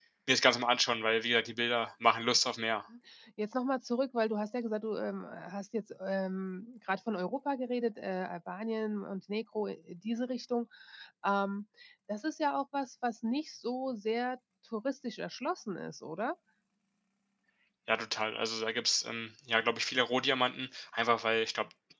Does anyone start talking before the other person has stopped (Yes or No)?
No